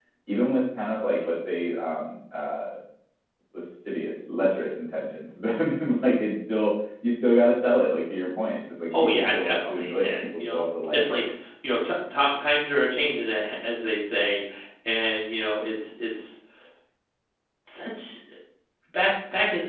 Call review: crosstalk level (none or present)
present